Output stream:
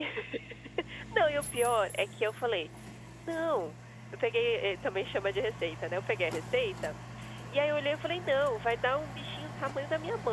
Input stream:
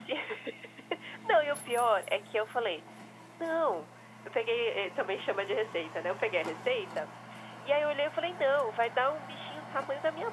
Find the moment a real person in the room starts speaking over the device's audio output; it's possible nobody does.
none

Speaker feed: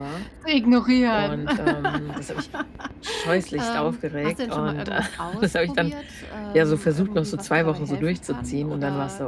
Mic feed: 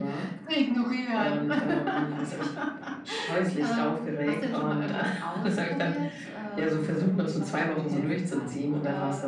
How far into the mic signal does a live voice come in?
none

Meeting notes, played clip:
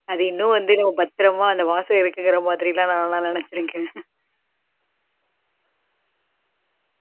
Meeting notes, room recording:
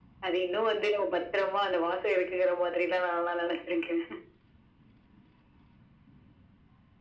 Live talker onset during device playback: none

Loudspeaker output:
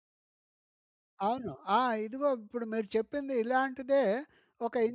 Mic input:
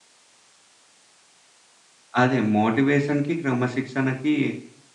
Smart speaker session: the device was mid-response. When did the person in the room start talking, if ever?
2.2 s

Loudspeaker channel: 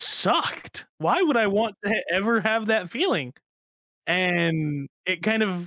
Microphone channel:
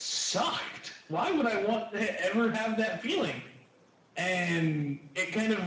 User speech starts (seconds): none

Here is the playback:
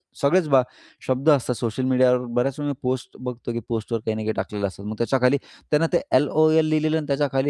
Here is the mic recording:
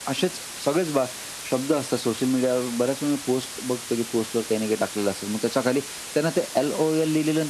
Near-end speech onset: none

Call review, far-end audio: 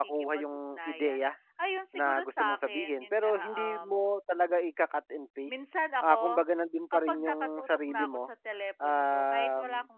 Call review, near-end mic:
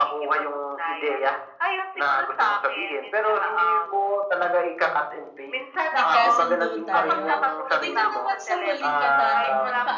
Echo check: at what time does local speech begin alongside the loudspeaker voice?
5.9 s

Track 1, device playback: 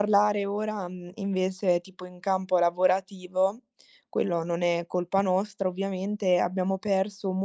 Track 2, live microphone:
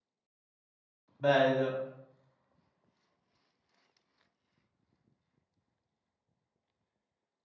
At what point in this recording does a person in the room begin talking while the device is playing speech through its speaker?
1.2 s

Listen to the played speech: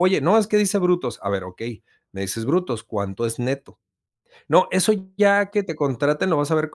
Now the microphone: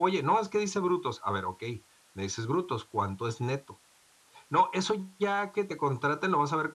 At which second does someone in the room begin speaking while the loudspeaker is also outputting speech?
none

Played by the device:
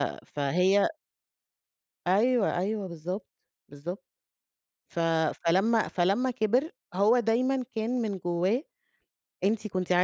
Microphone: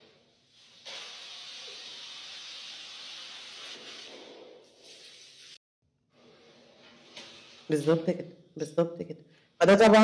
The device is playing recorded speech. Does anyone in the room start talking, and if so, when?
7.7 s

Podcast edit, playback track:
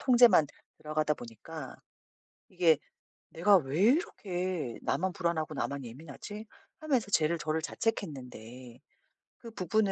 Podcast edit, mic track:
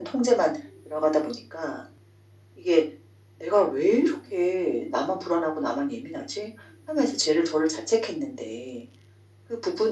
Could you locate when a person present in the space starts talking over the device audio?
none

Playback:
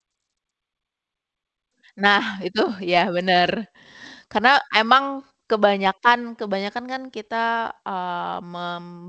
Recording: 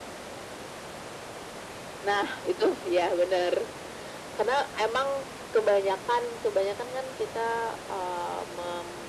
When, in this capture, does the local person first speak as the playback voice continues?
none

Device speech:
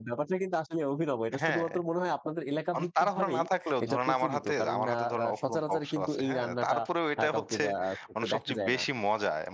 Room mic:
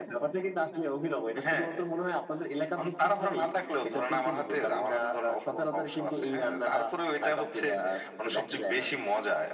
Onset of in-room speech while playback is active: none

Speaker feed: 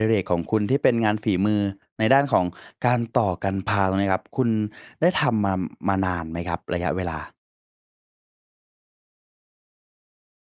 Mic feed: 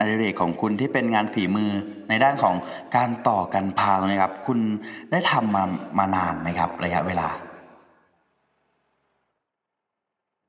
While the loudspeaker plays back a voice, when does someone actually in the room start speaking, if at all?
none

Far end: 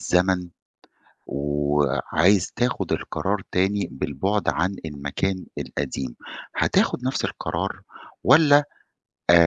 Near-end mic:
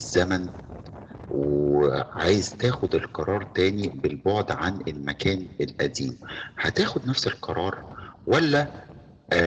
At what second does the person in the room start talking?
none

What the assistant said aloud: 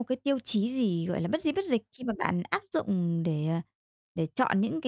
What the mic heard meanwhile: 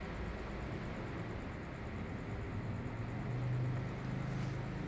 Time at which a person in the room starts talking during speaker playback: none

